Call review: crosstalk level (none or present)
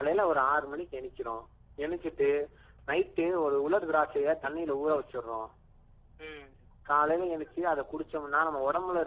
present